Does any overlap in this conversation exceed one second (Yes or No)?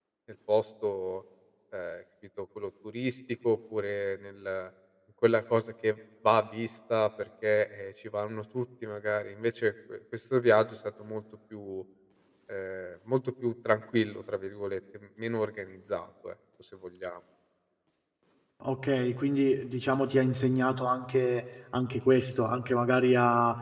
No